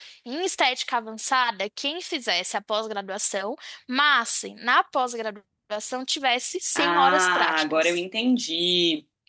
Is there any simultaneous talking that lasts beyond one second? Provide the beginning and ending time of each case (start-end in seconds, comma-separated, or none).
6.8-8.0